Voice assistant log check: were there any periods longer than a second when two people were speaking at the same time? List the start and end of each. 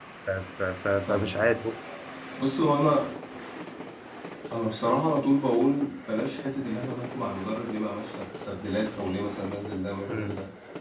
none

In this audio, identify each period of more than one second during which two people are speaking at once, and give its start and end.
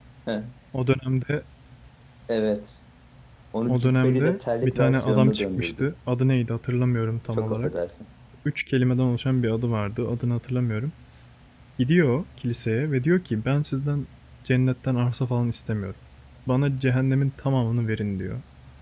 3.7-5.9

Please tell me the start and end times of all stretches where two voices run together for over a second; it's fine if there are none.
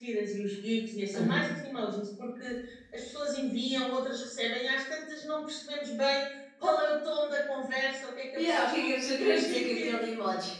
8.4-9.9

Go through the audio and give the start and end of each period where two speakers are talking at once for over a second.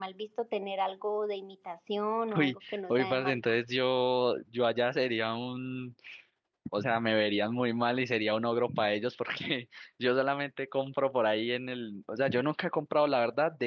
2.4-3.6

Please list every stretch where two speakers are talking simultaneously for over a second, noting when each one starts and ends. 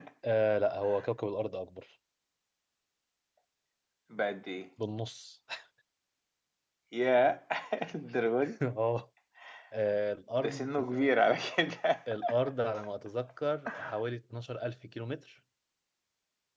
none

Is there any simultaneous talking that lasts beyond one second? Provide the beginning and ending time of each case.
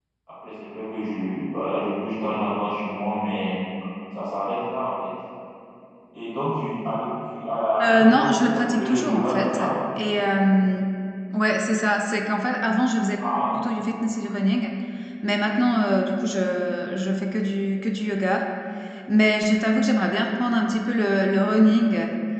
7.8-9.7

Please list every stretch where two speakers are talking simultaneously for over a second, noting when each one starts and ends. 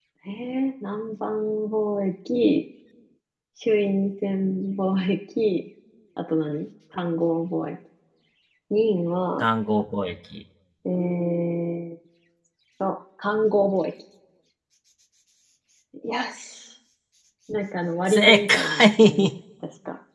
18.1-19.3

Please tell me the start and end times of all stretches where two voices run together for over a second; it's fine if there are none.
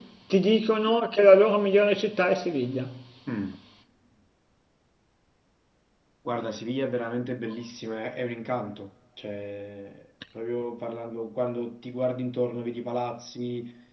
none

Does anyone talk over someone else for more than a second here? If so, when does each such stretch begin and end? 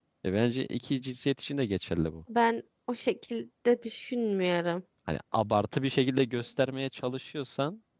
none

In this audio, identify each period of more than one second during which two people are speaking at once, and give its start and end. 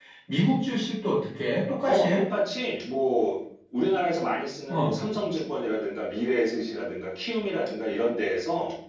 none

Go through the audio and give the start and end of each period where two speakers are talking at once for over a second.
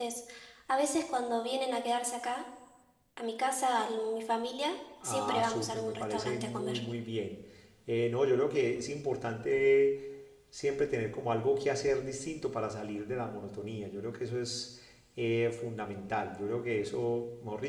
5.0-6.8

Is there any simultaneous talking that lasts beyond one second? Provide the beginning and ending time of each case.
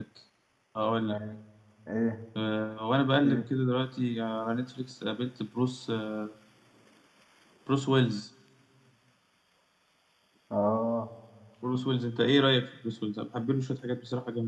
none

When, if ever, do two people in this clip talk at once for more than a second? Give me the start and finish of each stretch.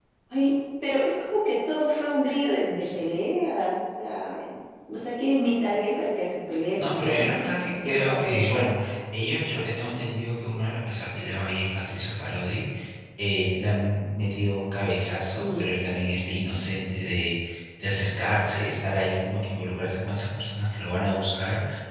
6.8-8.7

